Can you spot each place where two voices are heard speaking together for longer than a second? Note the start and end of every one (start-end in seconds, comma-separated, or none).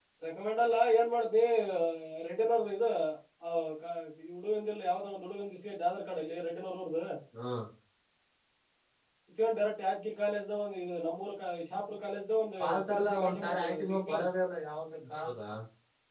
12.6-14.0